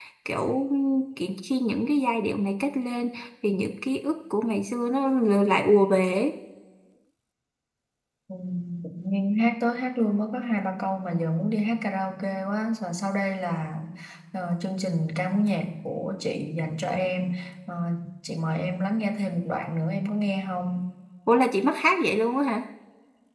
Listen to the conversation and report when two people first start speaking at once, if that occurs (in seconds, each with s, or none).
none